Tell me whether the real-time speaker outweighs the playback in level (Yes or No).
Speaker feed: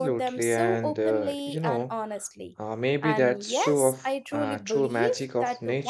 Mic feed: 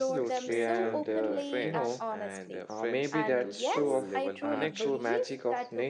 No